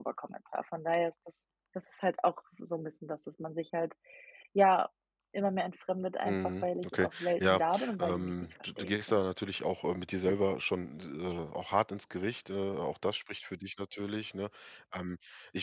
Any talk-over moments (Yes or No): Yes